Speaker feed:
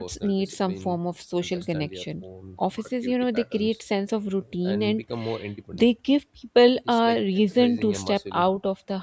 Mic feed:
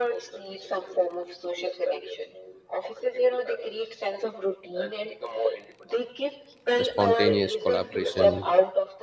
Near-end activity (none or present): present